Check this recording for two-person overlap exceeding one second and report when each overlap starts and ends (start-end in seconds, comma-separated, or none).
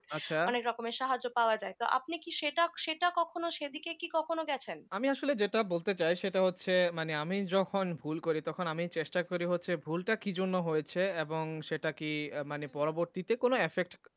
none